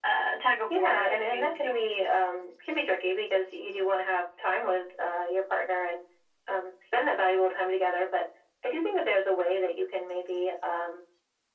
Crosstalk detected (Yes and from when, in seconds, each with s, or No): Yes, from 0.7 s